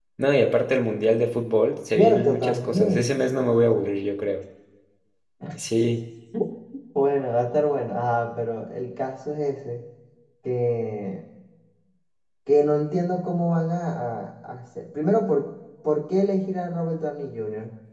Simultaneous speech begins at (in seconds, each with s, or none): 1.9 s